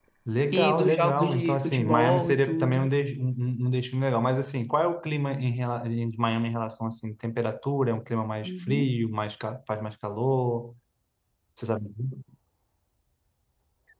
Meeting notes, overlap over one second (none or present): present